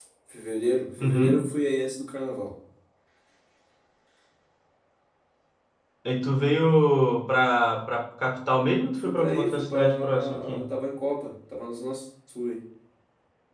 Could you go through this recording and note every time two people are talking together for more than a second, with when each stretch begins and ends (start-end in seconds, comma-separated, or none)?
9.0-10.6